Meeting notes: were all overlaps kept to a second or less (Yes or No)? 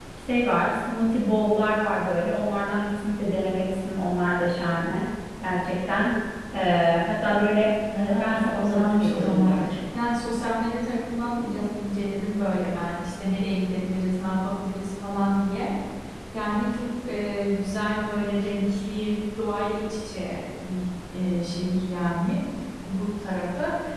No